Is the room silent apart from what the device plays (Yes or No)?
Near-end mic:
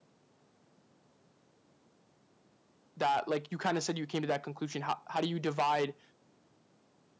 No